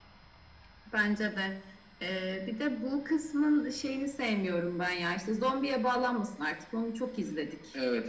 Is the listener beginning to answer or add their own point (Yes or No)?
Yes